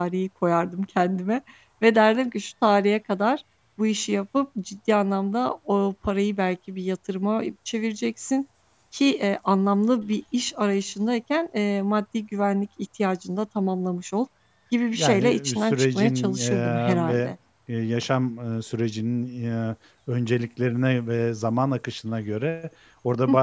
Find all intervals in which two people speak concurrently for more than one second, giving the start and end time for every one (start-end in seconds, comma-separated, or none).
14.9-17.3